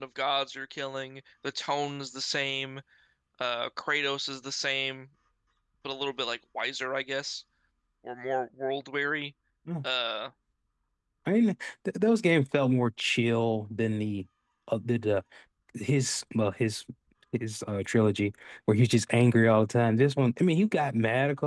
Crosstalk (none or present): none